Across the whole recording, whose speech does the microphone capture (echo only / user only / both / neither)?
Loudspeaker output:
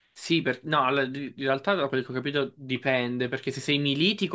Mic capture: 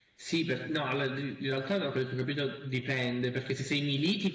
echo only